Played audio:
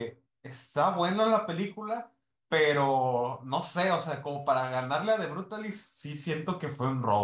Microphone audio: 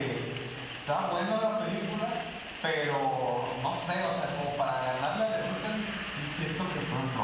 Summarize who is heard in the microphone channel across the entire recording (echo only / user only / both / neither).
echo only